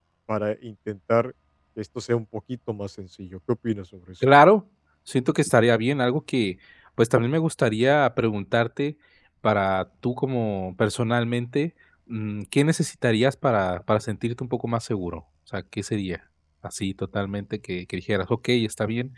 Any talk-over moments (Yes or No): No